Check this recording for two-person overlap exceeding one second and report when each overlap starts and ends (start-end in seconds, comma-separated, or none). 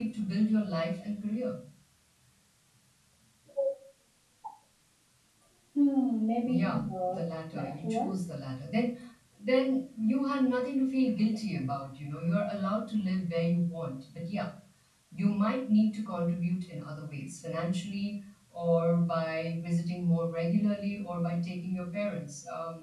6.4-8.2